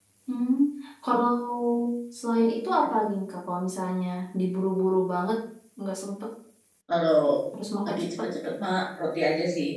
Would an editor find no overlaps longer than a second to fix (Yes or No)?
Yes